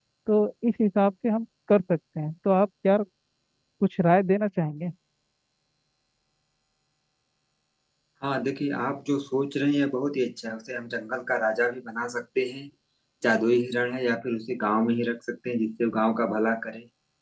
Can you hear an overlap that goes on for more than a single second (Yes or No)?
No